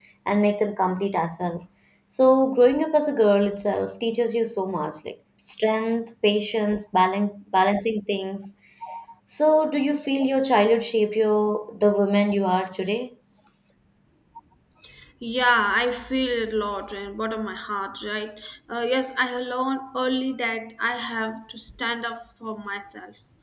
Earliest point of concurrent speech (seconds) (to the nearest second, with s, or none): none